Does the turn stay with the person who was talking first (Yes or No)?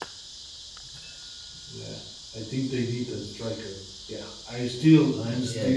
No